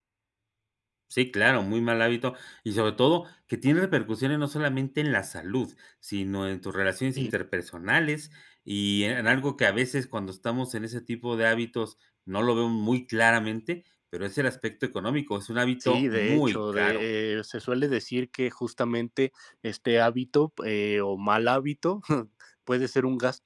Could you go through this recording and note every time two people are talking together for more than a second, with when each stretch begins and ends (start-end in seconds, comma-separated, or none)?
15.8-17.0